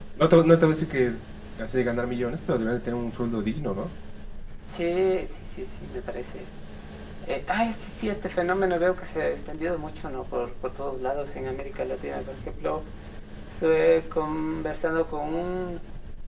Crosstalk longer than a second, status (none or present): none